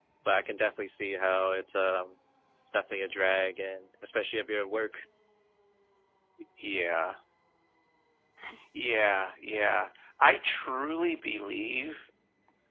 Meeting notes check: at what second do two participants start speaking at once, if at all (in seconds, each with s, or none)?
none